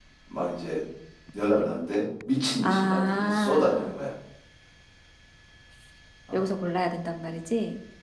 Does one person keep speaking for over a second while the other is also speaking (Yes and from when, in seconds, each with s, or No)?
Yes, from 2.6 s